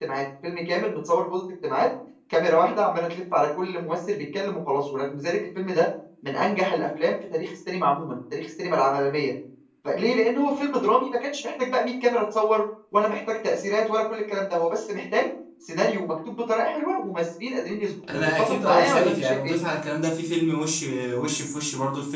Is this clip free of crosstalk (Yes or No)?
No